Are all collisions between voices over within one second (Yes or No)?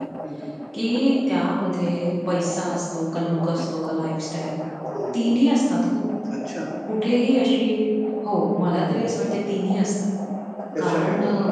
Yes